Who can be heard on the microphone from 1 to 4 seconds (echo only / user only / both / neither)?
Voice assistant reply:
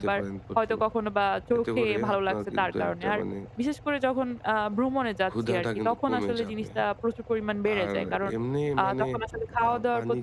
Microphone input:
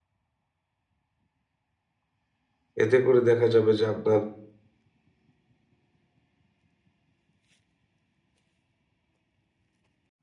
user only